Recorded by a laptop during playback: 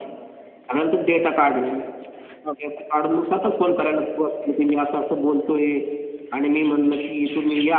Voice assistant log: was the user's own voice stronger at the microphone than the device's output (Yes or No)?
No